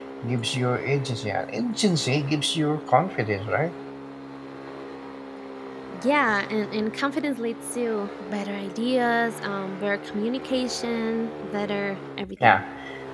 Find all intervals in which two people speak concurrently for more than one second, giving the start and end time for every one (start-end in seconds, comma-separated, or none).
none